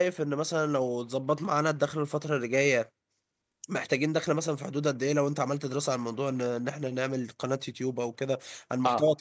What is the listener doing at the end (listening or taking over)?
taking over